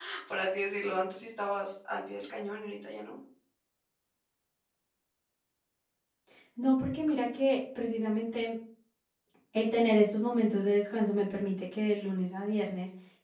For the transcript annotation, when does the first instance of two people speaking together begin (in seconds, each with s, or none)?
none